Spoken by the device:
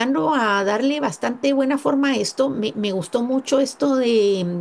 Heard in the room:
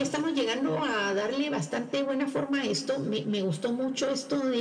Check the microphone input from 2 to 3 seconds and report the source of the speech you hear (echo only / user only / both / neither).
echo only